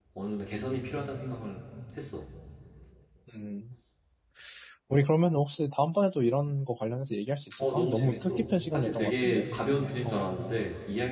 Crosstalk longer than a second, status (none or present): present